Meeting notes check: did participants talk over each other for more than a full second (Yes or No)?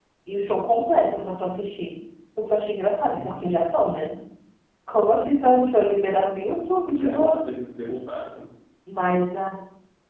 Yes